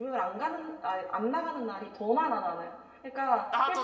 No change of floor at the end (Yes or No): Yes